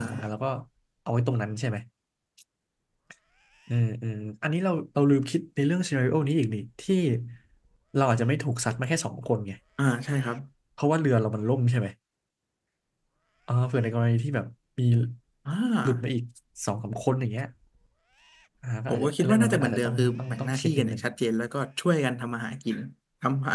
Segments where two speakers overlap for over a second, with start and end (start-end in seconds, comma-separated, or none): 18.9-21.0